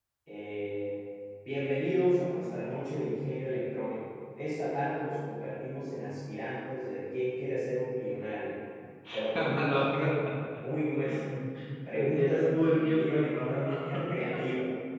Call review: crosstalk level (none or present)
present